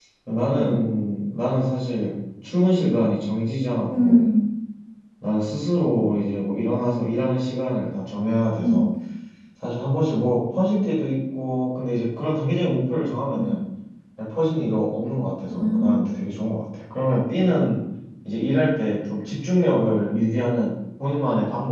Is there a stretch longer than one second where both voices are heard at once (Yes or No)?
No